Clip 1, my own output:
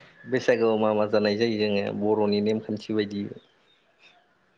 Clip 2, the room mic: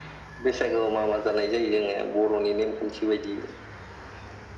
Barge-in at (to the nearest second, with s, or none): none